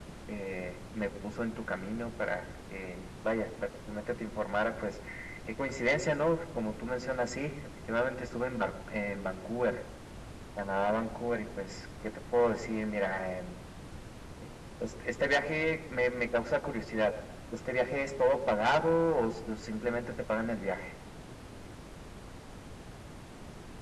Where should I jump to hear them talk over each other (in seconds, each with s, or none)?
none